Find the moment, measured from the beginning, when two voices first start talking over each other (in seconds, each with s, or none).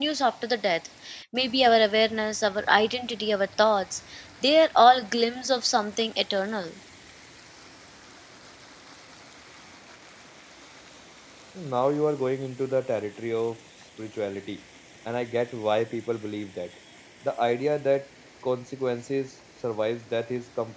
none